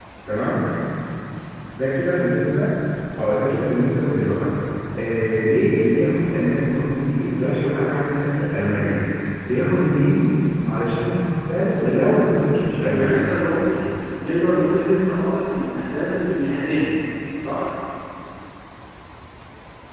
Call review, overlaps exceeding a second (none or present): present